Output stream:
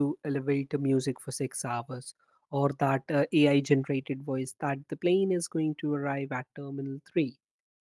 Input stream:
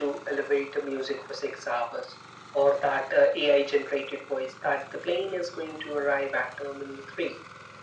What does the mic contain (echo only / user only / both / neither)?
echo only